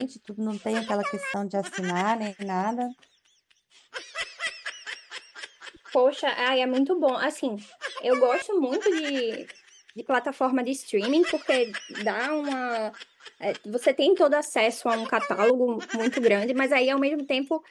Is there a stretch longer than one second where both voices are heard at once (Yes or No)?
No